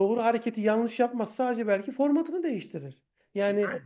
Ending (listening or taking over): listening